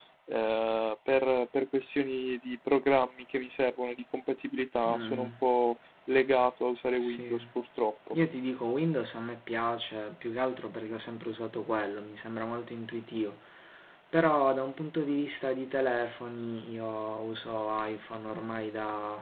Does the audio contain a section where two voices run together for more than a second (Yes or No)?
No